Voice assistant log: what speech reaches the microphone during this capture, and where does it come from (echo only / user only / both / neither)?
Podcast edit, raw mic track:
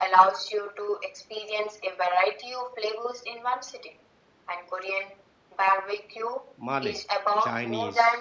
both